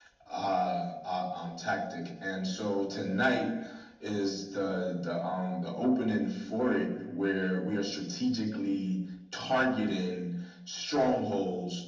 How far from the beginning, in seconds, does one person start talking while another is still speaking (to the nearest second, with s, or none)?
none